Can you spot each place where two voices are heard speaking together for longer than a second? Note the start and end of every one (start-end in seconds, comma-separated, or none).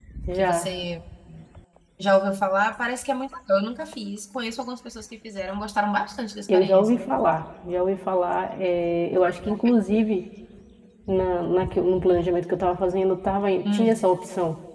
none